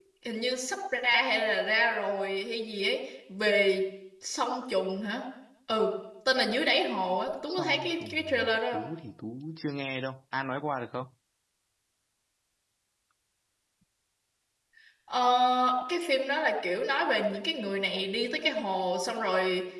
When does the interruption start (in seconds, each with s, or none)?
7.5 s